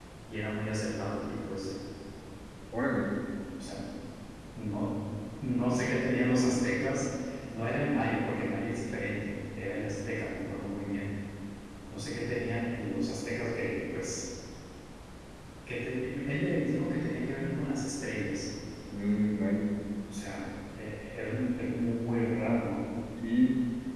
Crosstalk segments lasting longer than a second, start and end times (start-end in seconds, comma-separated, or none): none